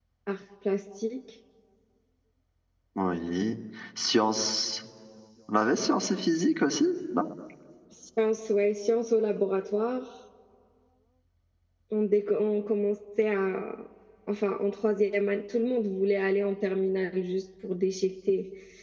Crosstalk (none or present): none